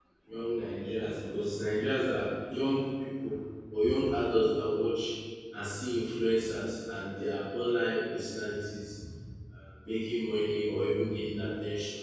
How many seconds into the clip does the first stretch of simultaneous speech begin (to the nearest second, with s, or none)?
none